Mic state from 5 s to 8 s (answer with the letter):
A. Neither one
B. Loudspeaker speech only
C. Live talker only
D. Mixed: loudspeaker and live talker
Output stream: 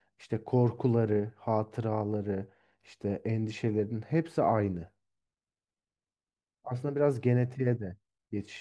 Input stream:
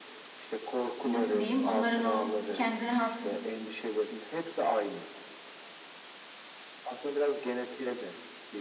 B